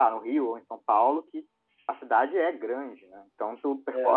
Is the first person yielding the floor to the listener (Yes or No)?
Yes